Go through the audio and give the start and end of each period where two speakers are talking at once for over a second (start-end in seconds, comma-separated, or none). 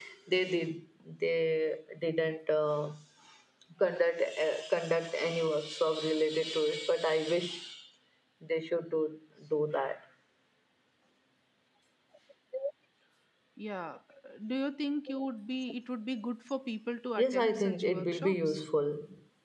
17.2-18.6